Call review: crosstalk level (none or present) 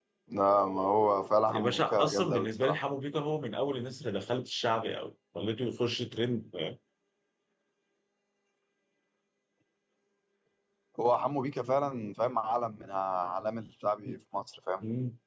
present